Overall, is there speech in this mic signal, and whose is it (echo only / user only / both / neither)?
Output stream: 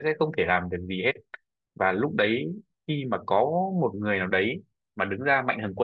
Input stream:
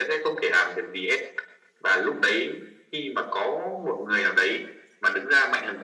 echo only